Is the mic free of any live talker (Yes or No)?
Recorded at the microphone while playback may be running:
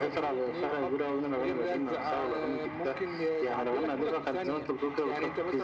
Yes